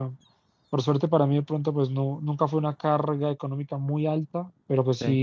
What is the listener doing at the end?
listening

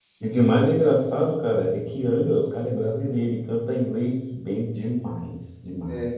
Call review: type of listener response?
taking over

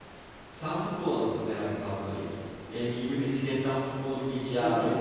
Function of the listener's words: taking over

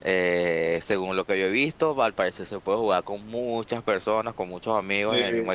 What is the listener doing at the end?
taking over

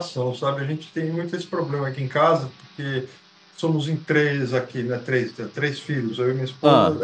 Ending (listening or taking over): listening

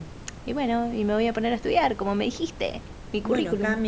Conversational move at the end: taking over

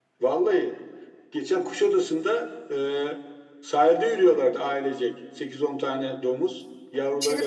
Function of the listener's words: taking over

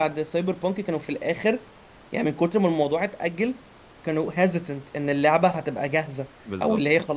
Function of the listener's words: listening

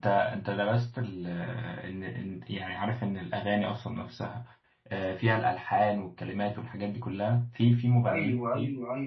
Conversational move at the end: taking over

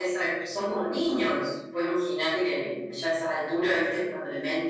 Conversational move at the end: listening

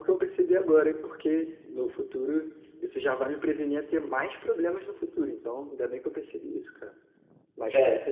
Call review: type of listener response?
listening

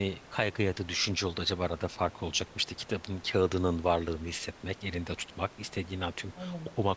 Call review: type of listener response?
listening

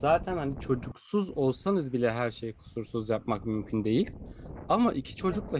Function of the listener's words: listening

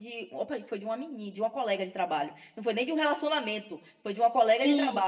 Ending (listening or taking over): listening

